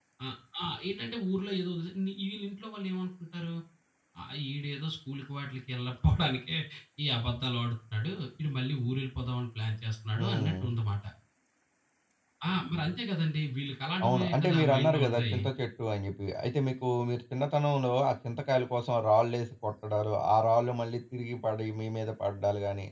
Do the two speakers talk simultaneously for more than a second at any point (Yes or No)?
Yes